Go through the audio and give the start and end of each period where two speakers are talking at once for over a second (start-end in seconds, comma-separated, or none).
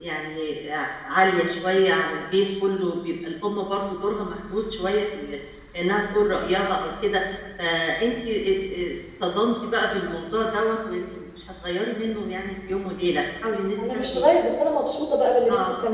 none